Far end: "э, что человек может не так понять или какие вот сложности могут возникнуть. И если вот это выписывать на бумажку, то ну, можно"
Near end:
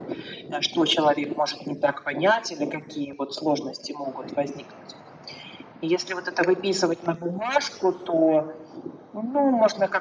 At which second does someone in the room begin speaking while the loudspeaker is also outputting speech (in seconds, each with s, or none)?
none